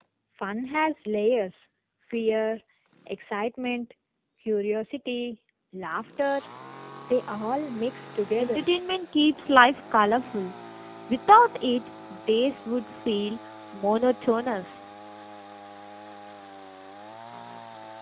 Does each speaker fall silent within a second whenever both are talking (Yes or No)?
Yes